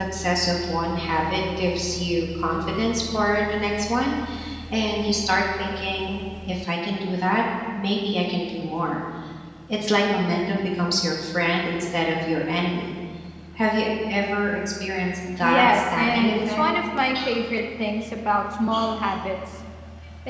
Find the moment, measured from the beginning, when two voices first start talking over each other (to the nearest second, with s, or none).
15 s